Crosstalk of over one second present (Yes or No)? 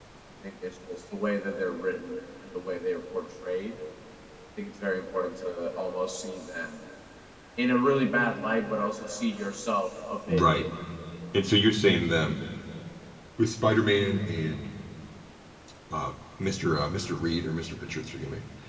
No